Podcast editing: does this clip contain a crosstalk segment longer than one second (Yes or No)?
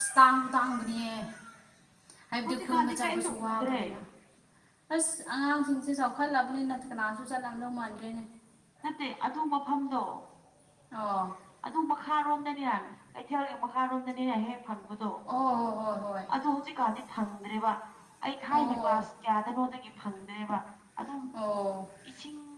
Yes